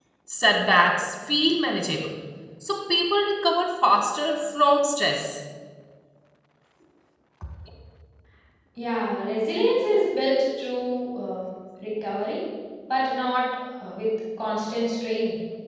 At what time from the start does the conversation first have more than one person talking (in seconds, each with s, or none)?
none